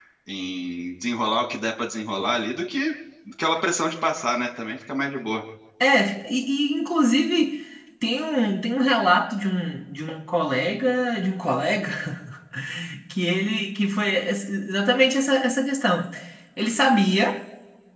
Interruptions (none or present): none